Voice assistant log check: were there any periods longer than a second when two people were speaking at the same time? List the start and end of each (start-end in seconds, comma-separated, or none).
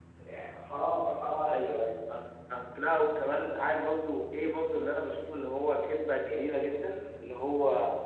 none